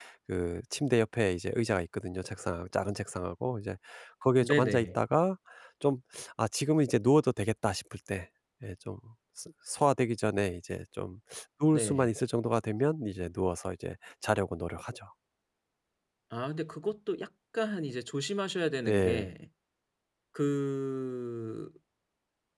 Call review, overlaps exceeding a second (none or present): none